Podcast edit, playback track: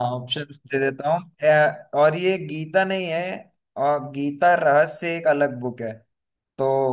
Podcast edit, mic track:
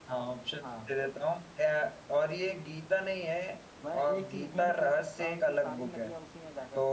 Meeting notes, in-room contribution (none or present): present